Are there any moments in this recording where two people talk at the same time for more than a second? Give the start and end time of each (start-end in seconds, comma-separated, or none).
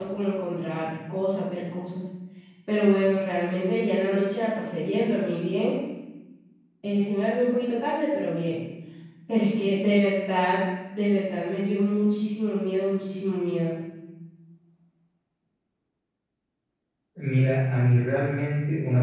none